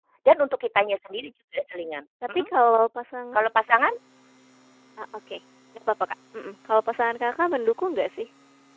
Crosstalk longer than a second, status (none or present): none